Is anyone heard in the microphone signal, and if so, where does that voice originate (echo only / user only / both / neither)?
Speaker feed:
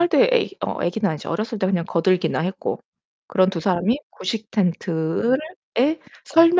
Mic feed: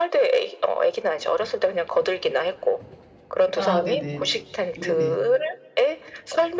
both